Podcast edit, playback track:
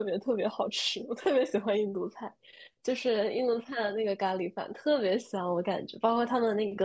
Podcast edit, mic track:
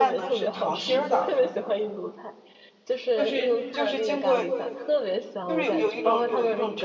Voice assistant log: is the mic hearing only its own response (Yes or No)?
No